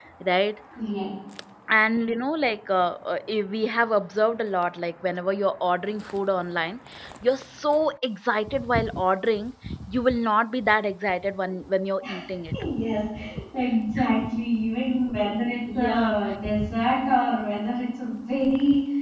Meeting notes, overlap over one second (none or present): none